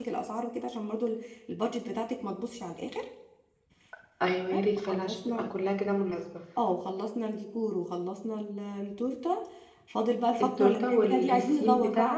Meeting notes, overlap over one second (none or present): present